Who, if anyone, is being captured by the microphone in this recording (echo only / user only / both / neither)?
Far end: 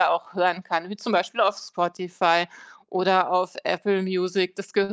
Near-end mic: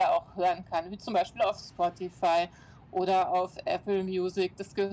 echo only